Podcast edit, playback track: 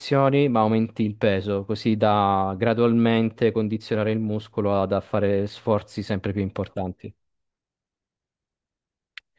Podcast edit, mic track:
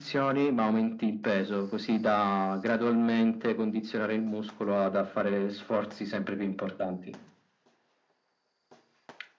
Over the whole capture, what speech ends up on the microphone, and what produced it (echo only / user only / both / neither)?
echo only